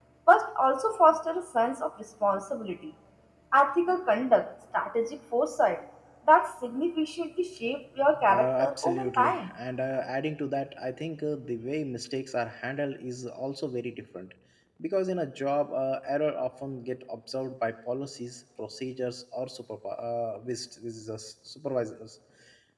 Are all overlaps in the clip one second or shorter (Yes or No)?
No